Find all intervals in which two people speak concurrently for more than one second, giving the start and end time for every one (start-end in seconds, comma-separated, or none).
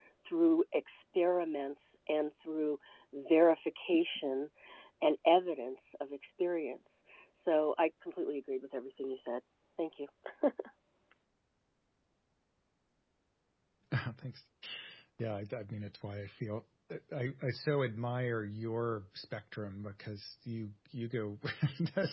none